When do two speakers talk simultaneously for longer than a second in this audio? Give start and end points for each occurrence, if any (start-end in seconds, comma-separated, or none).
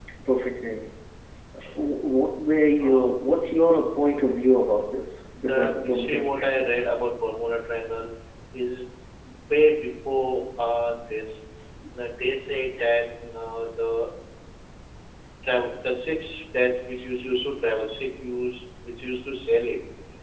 5.4-6.7